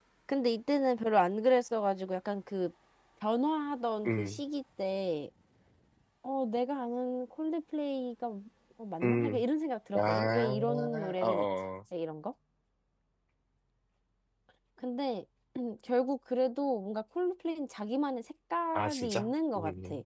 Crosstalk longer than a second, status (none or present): present